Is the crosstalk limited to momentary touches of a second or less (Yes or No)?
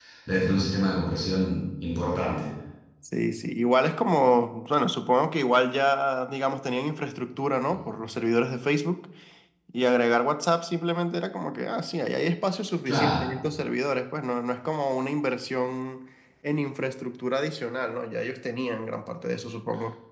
Yes